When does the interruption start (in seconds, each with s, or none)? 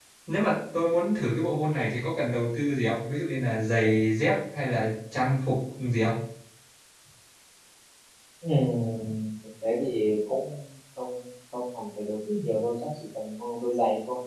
none